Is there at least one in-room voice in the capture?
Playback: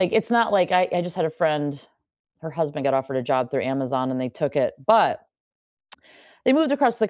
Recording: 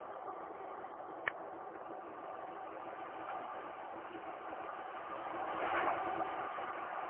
No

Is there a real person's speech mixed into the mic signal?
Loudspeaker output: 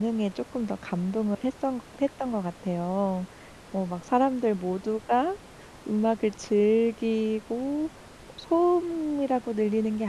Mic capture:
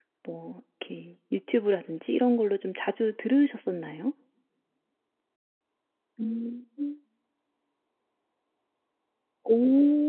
Yes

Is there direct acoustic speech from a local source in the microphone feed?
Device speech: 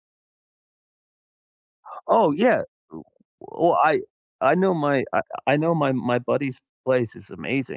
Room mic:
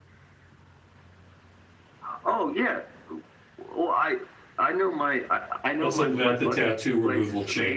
Yes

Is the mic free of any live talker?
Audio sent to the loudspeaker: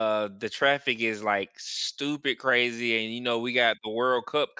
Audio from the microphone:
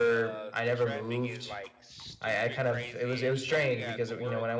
No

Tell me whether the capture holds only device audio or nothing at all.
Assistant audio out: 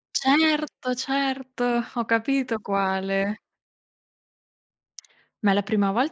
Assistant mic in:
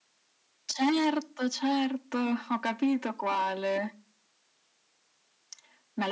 Yes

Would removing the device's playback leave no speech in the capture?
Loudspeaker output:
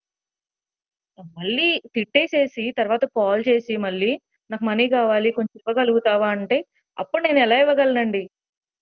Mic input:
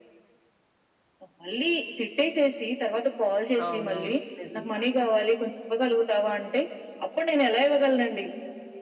No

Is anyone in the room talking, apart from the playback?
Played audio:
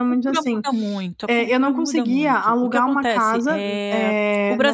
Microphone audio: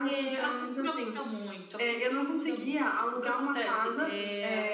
No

